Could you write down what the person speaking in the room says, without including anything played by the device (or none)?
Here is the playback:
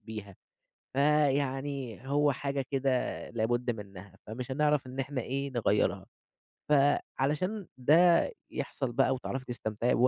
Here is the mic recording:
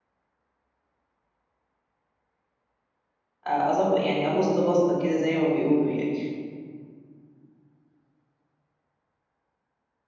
أ أضب يعني أبُص بَصّة كده زي ما بيقولوا يعني.